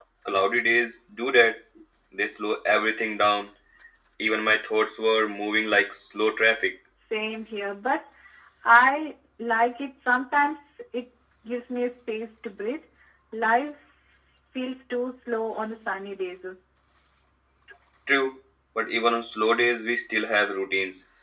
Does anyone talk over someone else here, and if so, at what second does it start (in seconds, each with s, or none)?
none